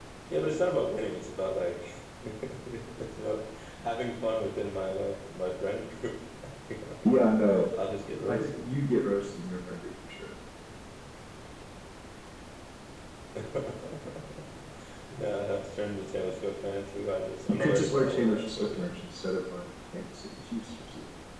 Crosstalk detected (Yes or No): Yes